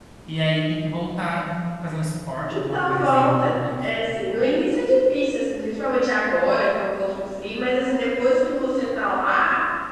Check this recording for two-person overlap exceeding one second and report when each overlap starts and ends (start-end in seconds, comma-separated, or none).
2.5-3.9